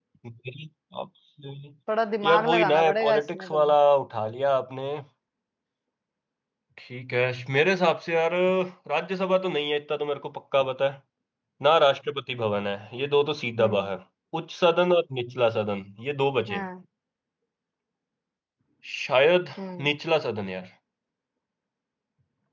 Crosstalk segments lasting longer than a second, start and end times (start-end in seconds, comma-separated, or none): 2.3-3.7